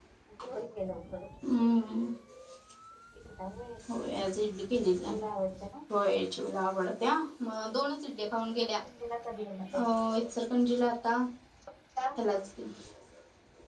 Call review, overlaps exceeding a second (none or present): none